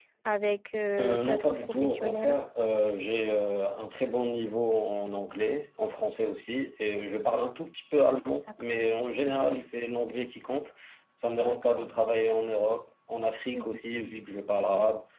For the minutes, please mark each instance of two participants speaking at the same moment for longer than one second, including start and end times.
1.0-2.4

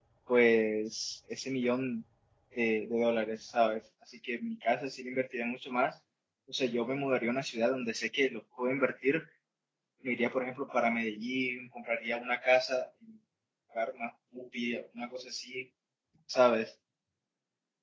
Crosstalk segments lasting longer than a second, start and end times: none

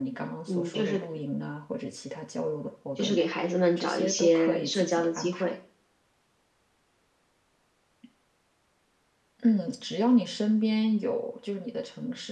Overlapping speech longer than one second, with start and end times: 3.8-5.5

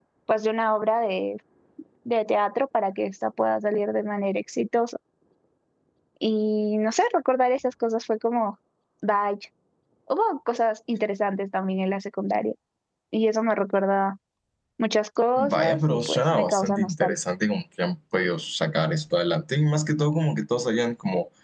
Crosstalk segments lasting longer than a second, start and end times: 15.4-17.1

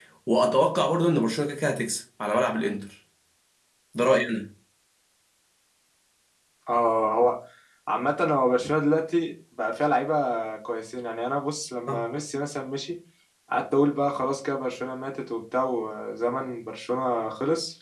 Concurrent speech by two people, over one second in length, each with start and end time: none

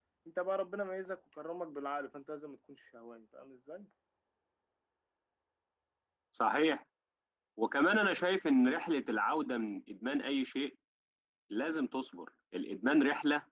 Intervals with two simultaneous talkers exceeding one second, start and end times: none

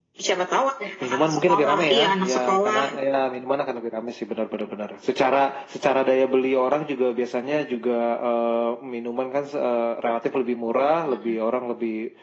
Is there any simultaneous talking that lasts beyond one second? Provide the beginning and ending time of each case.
1.0-2.8

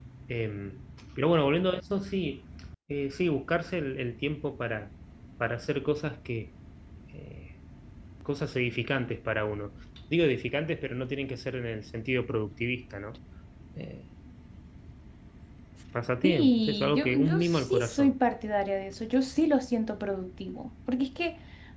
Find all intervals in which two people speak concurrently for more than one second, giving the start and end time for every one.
16.2-18.1

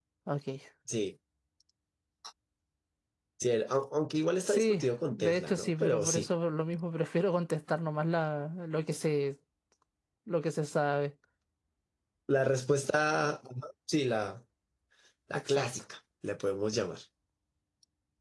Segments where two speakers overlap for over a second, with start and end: 4.5-6.3

